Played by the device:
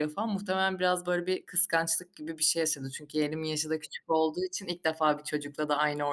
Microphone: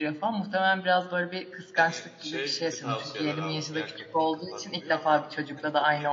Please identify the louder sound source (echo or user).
echo